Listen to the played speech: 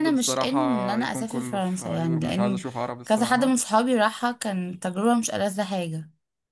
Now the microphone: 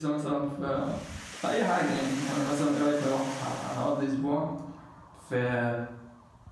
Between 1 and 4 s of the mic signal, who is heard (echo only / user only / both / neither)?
user only